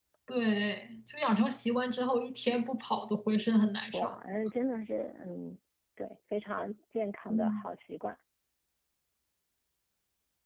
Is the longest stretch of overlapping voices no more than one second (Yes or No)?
Yes